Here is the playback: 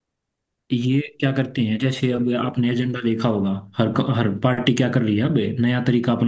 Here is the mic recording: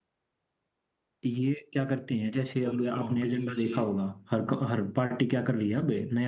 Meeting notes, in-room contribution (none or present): present